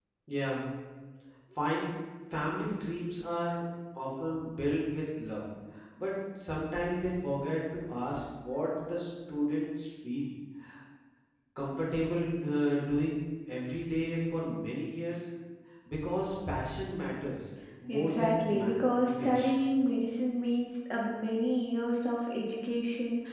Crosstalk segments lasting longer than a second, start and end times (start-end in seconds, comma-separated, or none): 17.9-19.5